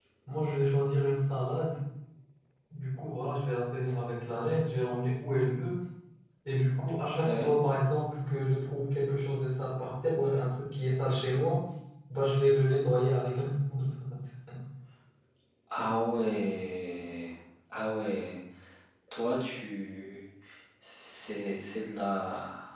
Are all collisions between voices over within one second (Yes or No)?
Yes